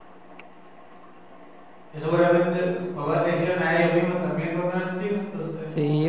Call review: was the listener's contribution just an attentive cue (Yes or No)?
No